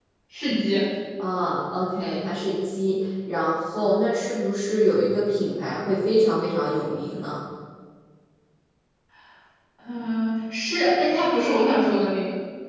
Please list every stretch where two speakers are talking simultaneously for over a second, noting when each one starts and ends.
none

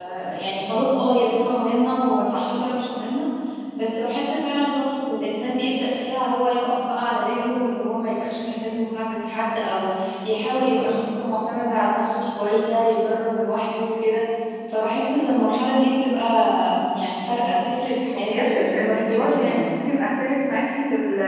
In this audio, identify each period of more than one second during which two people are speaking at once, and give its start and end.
18.2-19.7

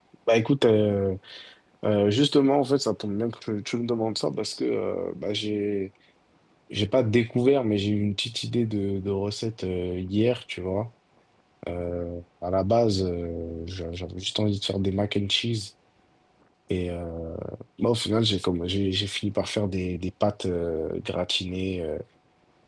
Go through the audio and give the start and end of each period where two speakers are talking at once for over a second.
none

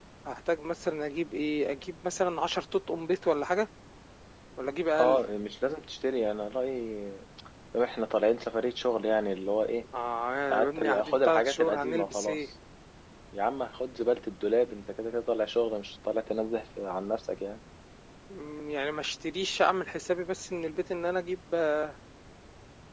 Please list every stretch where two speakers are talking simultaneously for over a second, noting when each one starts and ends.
10.5-12.4

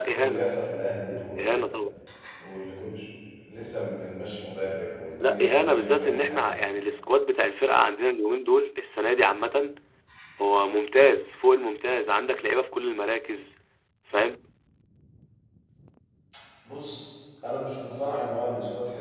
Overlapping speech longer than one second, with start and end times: 5.2-6.5

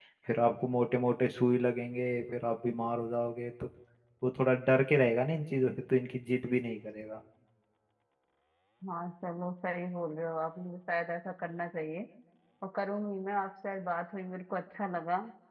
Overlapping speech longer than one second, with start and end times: none

